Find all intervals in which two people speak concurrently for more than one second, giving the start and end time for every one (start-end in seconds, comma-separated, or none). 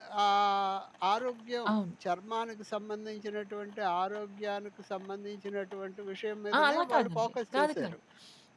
6.6-8.0